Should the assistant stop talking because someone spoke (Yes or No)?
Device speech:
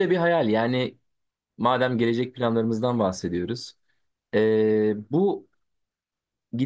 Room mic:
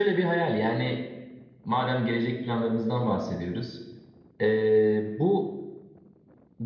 No